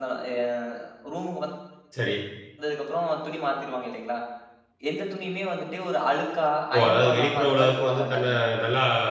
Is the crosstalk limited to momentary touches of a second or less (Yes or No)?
No